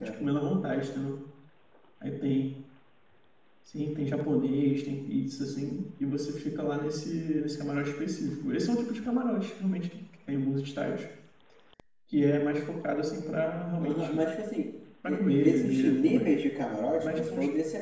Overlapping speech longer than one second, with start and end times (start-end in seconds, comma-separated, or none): 15.1-16.4